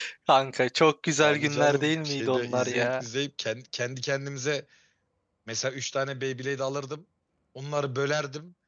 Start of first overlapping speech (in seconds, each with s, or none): 1.2 s